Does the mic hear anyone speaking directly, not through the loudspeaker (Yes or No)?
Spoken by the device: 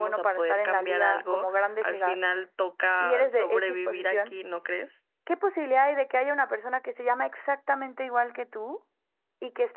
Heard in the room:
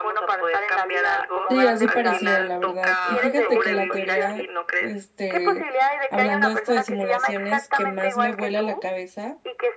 Yes